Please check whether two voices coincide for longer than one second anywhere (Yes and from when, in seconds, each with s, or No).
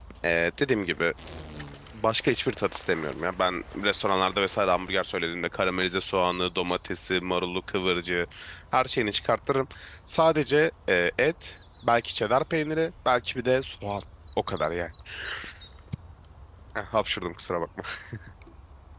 No